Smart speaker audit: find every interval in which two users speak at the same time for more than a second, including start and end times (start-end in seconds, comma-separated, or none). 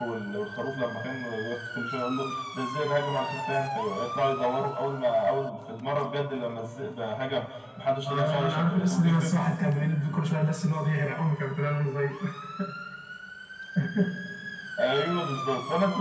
8.0-9.4